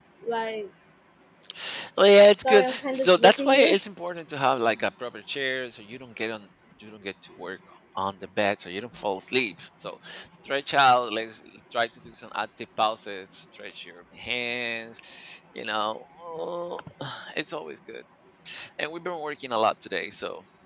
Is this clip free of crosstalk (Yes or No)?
No